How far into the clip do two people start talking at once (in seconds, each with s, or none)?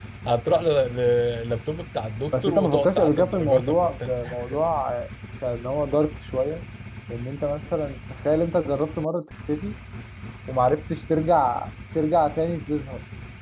2.3 s